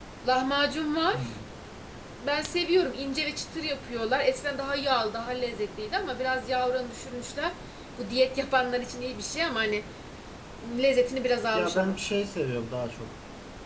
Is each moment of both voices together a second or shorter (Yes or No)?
Yes